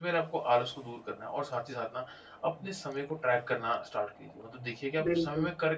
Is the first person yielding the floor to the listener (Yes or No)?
No